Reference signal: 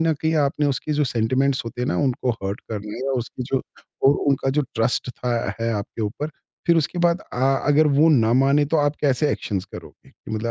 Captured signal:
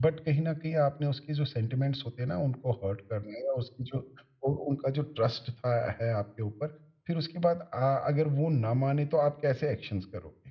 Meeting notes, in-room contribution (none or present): none